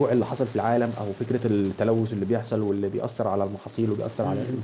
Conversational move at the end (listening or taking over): taking over